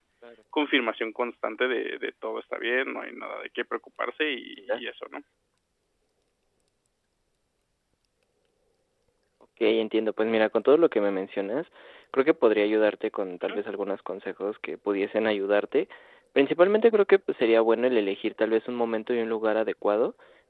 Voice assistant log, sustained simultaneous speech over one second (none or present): none